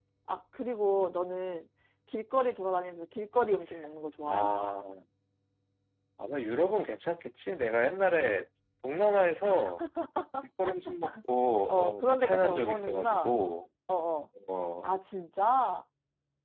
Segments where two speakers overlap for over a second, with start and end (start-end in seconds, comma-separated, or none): 11.7-13.3